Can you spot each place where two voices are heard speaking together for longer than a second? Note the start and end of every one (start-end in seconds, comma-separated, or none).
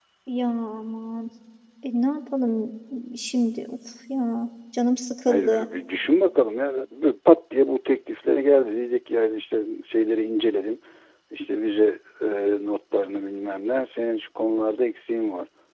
none